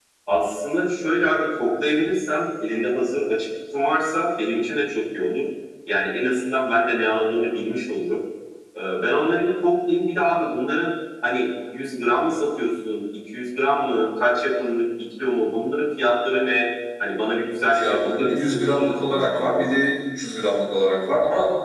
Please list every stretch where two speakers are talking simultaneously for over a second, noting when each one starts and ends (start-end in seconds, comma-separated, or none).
17.7-19.8